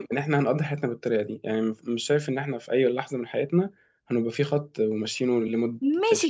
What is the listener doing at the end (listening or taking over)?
taking over